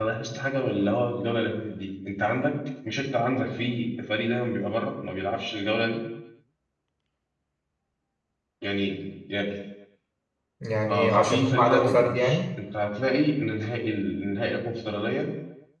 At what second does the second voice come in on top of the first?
10.9 s

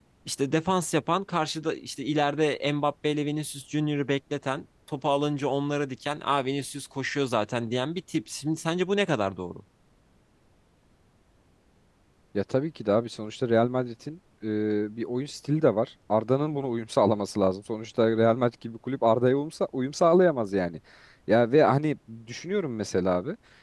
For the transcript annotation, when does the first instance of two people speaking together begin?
none

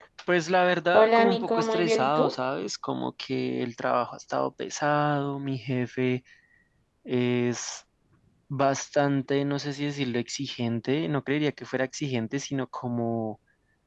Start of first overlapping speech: 0.9 s

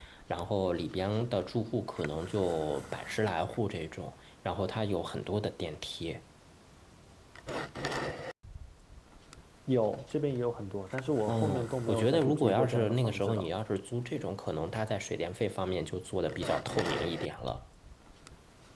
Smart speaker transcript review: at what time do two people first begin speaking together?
11.3 s

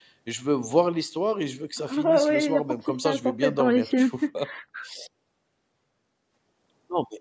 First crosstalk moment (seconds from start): 1.9 s

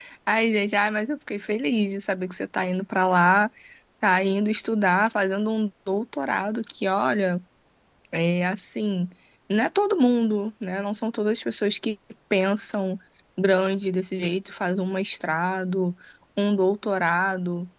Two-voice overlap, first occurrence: none

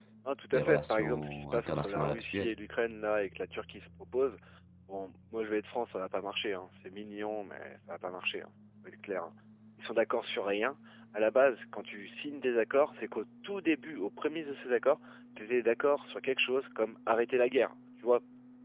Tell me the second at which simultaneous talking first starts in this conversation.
0.5 s

